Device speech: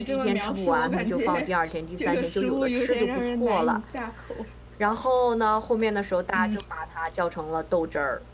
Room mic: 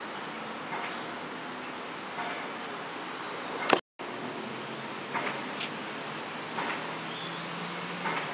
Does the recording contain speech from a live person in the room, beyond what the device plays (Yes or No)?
No